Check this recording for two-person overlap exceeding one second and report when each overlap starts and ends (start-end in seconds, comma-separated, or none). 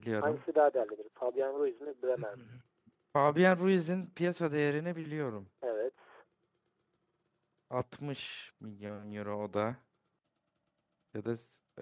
none